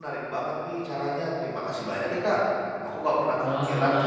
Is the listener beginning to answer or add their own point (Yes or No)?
No